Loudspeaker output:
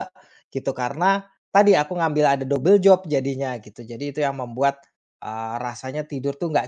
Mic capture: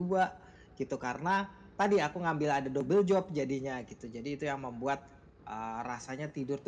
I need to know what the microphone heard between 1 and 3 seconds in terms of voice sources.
echo only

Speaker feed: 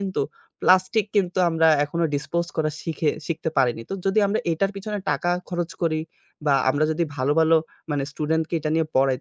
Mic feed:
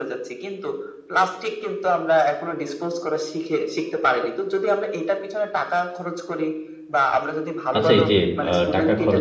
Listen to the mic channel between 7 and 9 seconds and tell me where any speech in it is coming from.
both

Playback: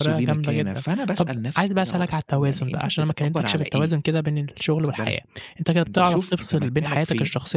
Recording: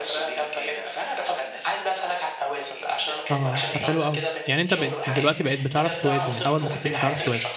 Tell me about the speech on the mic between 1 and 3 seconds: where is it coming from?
echo only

